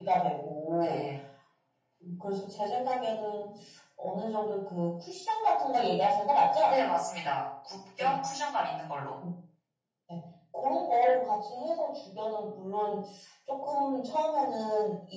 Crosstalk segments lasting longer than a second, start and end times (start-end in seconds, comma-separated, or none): none